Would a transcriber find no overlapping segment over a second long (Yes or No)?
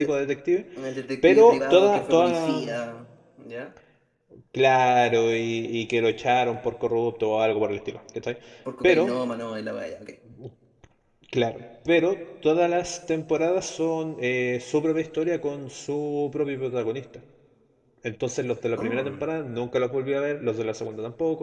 No